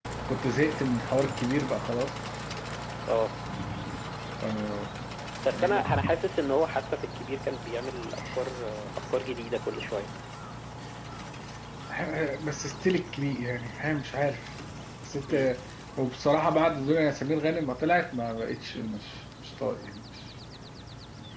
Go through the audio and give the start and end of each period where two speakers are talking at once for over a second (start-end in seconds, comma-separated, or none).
none